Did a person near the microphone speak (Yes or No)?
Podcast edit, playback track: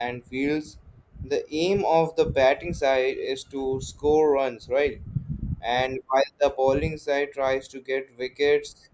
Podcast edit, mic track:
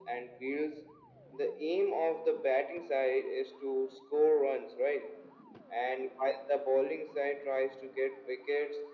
No